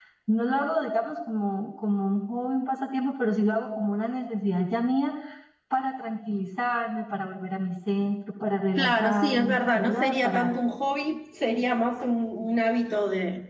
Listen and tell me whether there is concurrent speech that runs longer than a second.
Yes, from 8.8 s

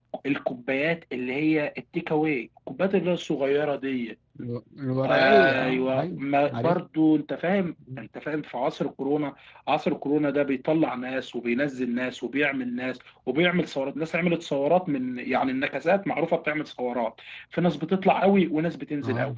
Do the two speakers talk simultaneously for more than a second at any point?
Yes, from 5.0 s

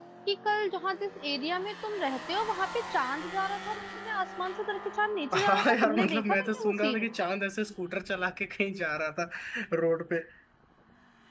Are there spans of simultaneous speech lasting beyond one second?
Yes, from 5.3 s

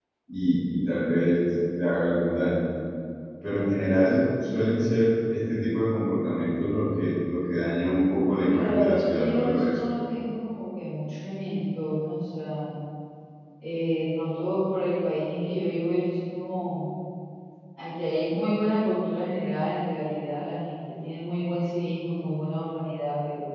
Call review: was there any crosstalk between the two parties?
Yes, from 8.5 s

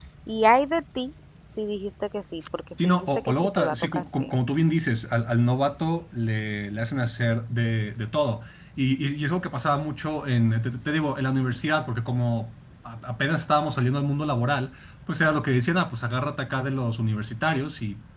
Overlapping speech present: Yes, from 2.8 s

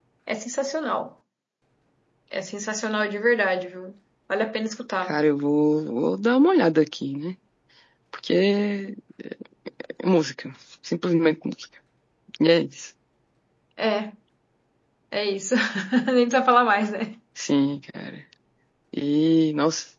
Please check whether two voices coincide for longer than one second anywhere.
No

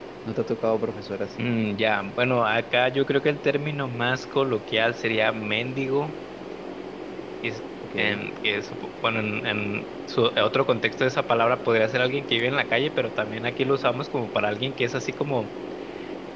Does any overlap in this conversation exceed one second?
No

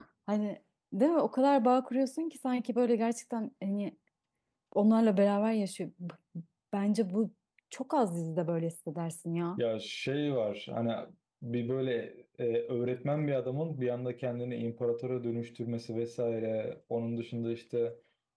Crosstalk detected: No

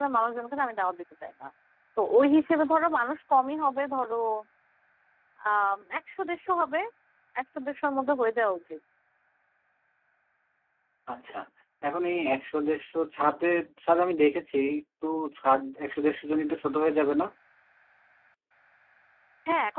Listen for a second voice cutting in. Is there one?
No

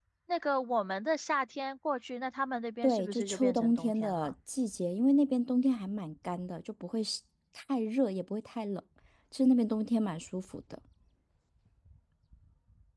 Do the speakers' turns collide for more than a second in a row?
Yes, from 2.8 s

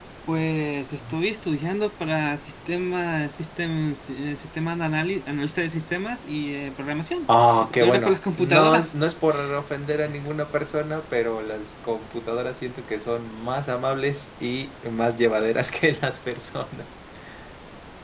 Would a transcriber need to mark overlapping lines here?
Yes, from 7.3 s

